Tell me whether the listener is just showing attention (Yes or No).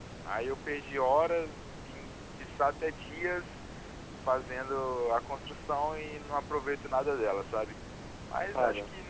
Yes